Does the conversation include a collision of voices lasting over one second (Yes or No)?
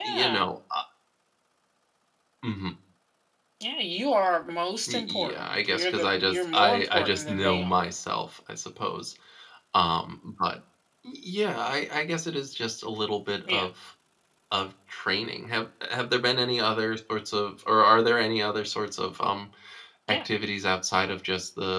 Yes